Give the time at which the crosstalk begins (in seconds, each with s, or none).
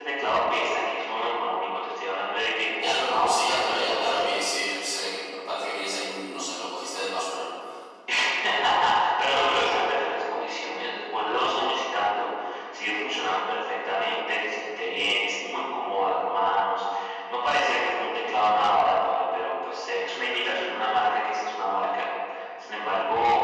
2.8 s